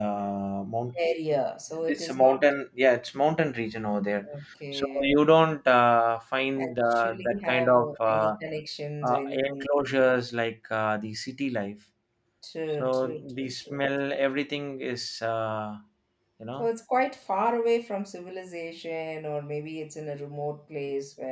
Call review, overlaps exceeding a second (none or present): present